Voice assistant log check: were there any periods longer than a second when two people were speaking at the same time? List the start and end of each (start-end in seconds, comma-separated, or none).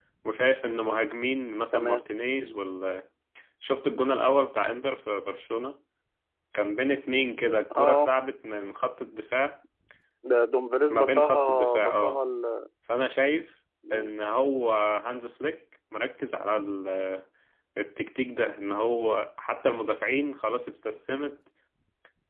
10.9-12.2